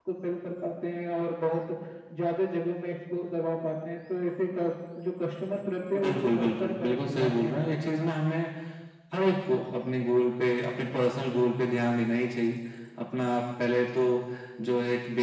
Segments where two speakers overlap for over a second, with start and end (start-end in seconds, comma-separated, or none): 6.0-7.5